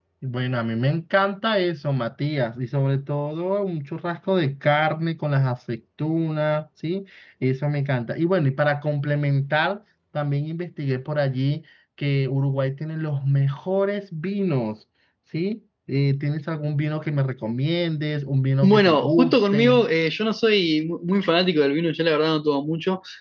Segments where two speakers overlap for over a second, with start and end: 18.6-19.8

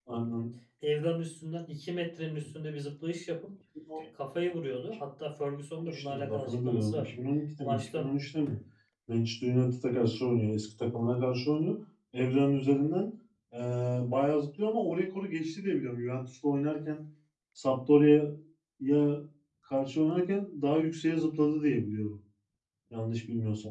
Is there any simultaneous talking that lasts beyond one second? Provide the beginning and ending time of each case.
5.9-7.1

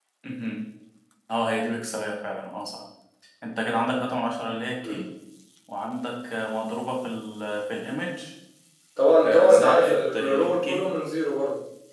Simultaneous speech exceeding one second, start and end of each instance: 9.2-10.9

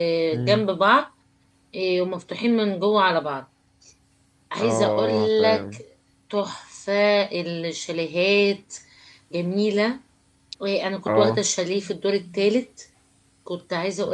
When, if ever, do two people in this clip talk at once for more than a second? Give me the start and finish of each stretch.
4.6-5.8

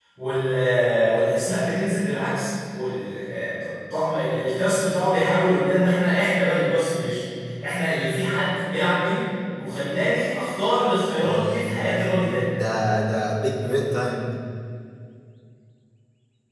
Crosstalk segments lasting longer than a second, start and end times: 11.2-12.4

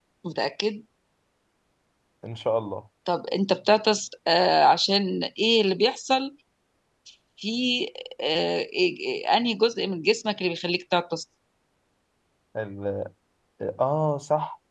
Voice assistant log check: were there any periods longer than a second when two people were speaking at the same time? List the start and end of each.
none

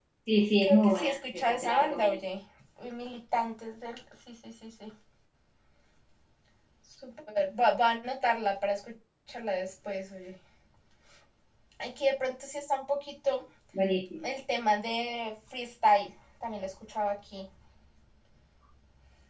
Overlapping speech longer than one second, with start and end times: 0.6-2.2

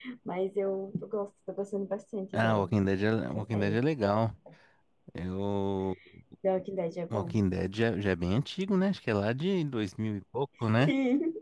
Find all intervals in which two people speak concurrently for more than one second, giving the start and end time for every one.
none

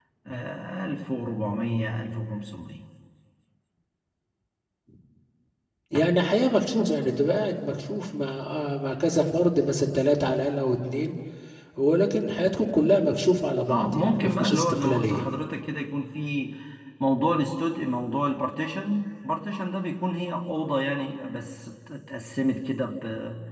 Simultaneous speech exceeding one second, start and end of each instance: 13.7-15.3

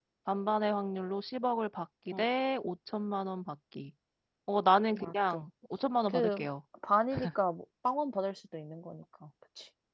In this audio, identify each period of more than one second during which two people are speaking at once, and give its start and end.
none

